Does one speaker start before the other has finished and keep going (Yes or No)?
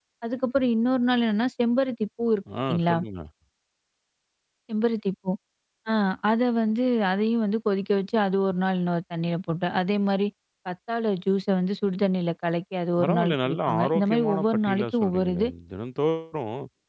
Yes